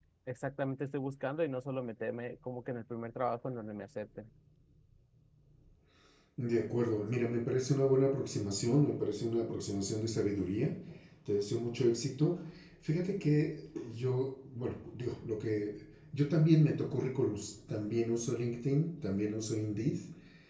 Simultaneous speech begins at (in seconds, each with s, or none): none